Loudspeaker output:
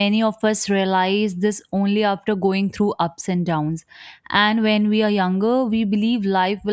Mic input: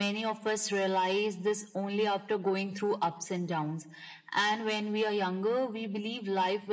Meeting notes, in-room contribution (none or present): none